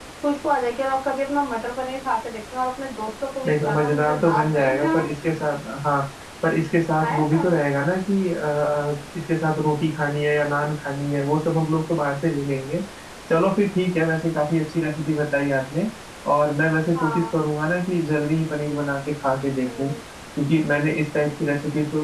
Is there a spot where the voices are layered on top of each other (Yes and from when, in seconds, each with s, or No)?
Yes, from 3.5 s